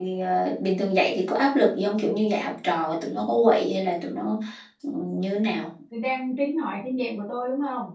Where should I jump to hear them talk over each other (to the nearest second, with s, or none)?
none